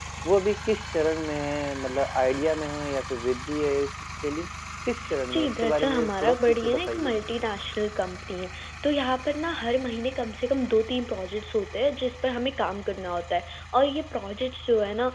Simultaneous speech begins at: 5.3 s

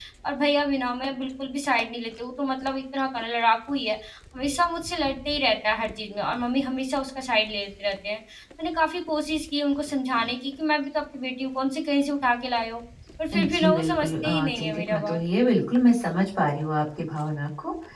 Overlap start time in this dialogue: 13.4 s

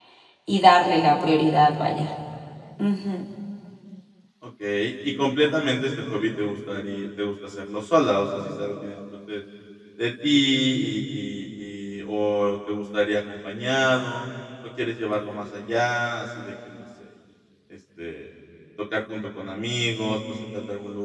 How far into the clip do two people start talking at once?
none

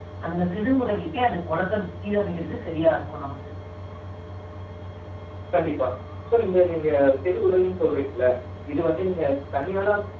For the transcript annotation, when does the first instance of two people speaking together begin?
none

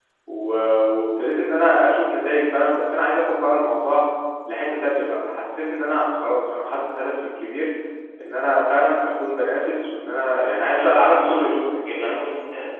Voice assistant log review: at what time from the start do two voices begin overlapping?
10.8 s

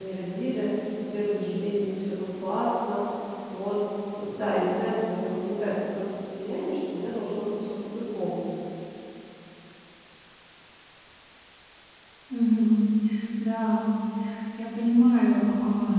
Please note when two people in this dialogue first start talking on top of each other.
none

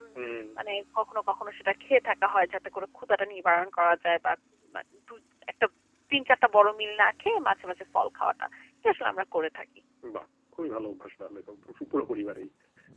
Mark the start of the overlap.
none

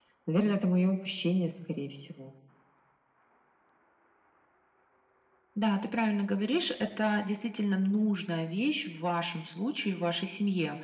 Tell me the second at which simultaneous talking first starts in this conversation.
none

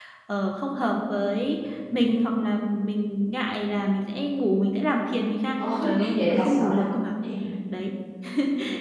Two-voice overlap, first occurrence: 5.5 s

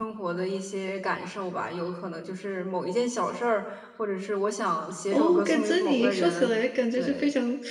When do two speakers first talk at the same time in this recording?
5.1 s

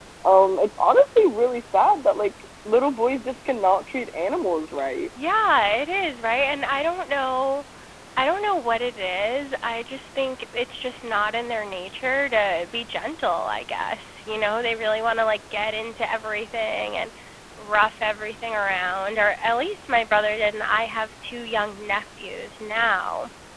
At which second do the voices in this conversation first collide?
none

